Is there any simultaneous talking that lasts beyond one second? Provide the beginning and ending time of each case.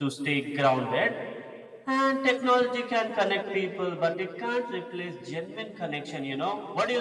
none

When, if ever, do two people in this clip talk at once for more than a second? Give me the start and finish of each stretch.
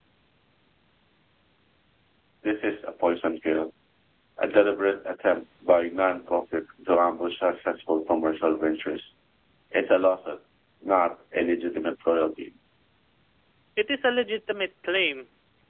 none

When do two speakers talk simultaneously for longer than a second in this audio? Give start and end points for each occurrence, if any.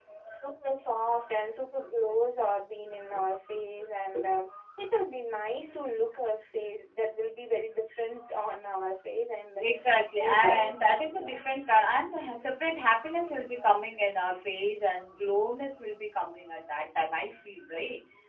none

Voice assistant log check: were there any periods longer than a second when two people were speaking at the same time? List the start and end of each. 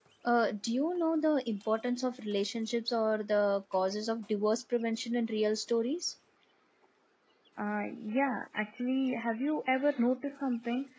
none

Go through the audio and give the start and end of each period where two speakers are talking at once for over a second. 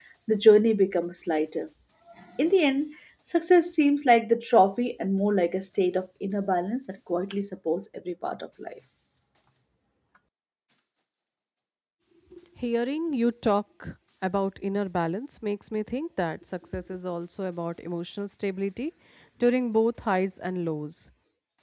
none

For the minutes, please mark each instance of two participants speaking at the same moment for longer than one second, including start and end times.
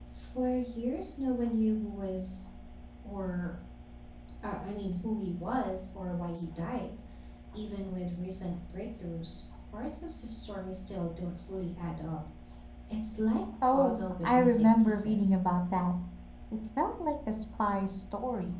13.7-15.4

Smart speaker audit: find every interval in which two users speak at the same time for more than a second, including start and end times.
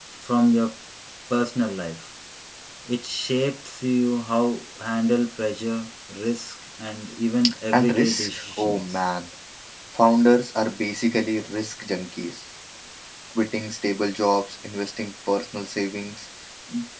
7.7-9.0

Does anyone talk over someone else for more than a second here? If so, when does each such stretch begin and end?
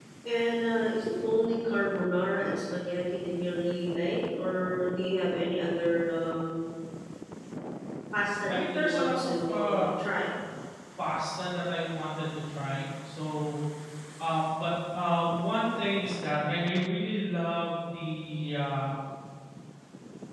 8.5-9.9

